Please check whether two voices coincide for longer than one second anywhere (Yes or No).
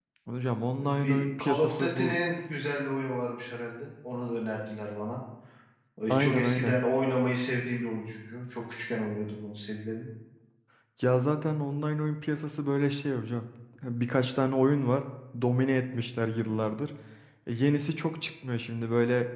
Yes